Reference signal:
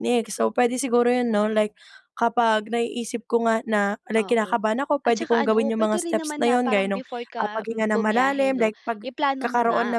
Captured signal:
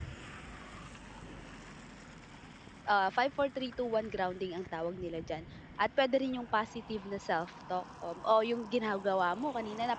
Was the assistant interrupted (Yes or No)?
Yes